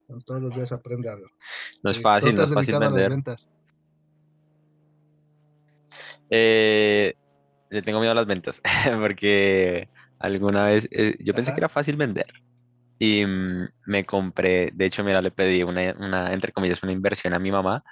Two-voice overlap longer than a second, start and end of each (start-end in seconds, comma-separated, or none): 1.9-3.2